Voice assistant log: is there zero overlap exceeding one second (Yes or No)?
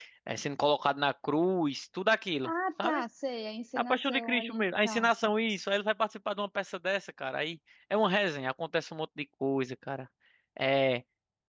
No